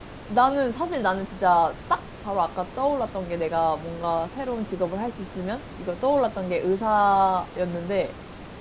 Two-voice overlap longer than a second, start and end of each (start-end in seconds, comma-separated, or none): none